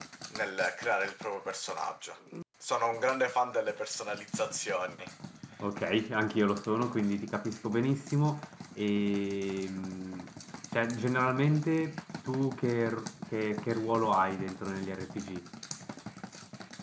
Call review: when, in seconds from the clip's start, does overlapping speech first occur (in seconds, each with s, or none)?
none